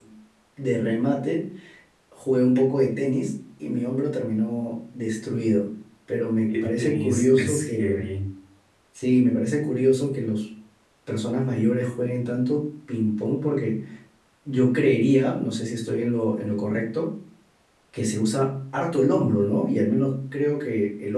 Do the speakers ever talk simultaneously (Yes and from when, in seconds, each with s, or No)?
Yes, from 6.5 s